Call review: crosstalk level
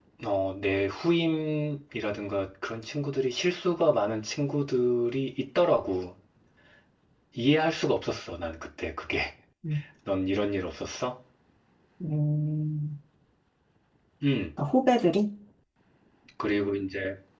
none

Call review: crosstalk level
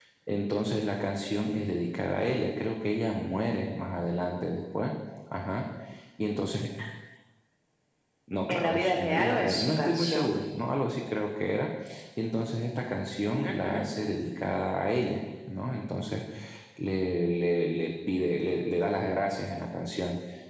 present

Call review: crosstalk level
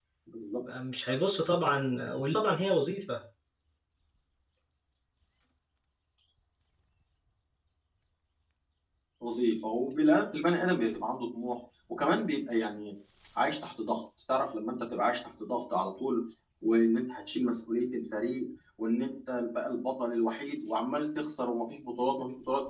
none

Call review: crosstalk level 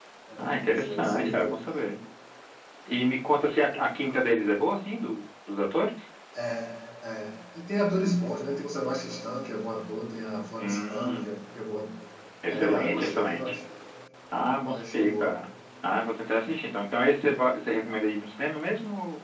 present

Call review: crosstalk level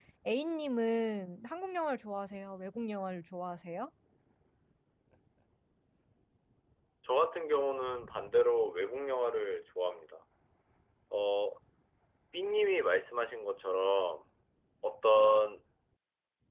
none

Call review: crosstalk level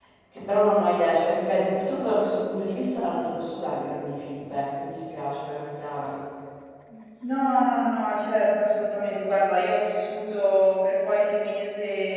none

